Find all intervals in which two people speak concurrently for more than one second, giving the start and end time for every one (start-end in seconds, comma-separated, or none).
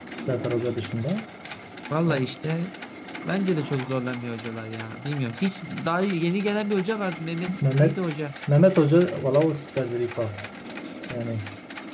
none